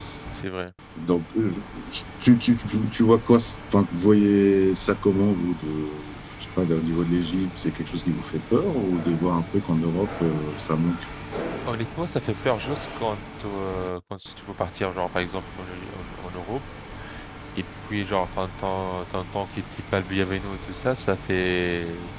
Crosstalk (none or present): none